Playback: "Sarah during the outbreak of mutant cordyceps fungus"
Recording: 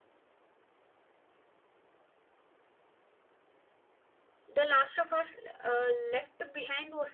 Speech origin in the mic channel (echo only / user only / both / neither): user only